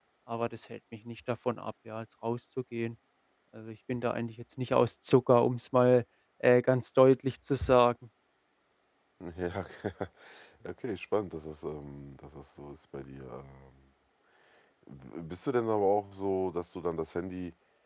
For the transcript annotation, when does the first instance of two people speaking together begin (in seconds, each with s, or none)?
none